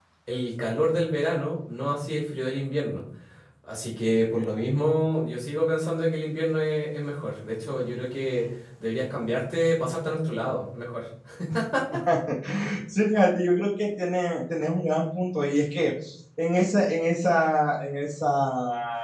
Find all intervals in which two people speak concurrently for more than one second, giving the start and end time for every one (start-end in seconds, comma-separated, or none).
none